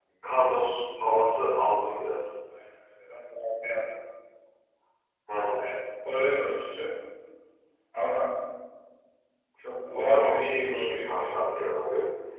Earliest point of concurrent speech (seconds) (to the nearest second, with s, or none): 10 s